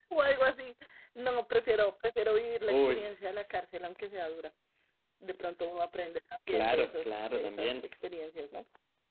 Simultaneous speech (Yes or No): Yes